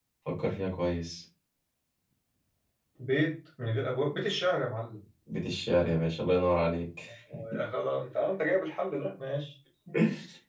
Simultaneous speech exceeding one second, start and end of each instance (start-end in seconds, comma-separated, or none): none